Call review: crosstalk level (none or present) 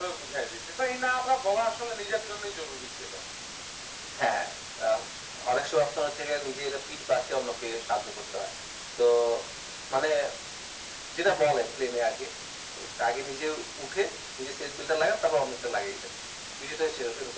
none